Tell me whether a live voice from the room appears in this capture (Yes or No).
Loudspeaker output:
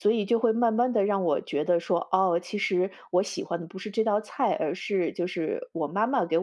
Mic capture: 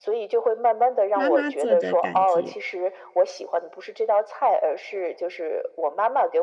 Yes